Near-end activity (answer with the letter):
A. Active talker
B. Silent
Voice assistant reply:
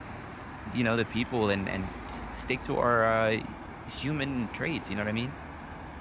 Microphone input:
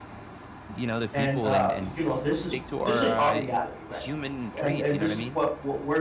A